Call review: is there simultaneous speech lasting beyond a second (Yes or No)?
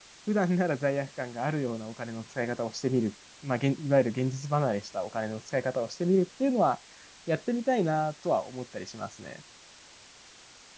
No